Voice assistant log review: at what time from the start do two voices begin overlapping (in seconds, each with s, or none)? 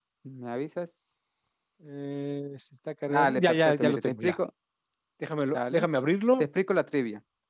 3.1 s